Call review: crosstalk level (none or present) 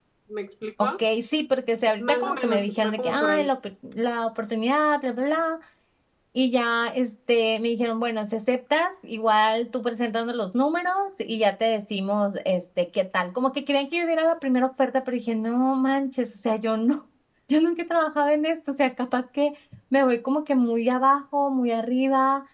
present